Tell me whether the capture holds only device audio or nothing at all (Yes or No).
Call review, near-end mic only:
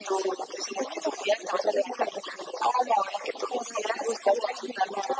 Yes